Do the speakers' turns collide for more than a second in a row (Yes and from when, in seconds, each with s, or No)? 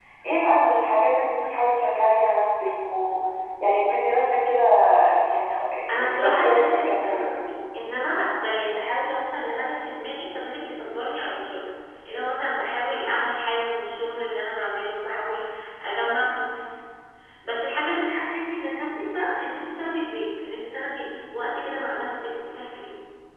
Yes, from 5.9 s